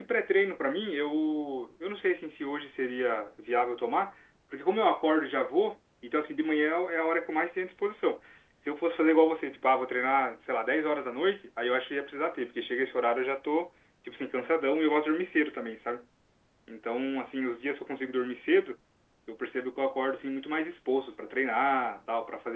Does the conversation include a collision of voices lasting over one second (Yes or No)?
No